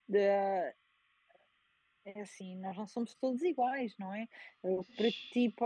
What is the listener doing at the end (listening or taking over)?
listening